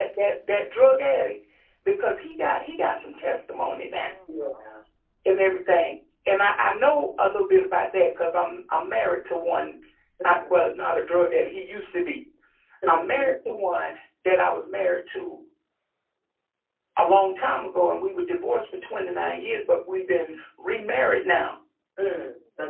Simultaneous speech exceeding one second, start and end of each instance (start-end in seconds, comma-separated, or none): none